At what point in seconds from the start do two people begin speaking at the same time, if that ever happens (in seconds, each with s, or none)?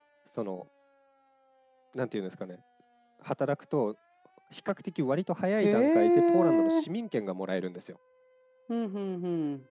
5.6 s